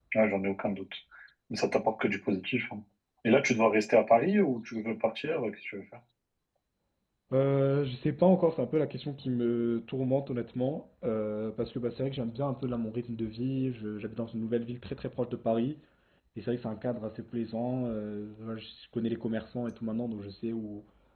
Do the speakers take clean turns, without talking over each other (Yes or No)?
Yes